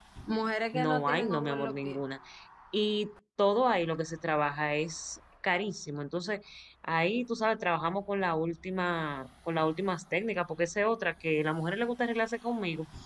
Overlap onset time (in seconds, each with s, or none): 0.7 s